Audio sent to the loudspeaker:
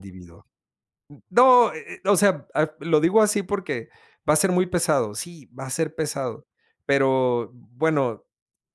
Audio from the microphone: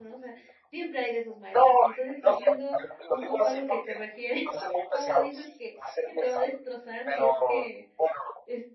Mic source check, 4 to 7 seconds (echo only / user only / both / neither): both